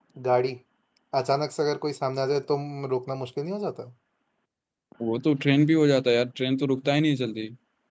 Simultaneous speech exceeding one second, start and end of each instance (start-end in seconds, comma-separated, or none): none